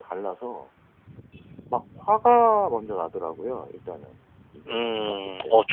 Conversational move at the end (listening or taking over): taking over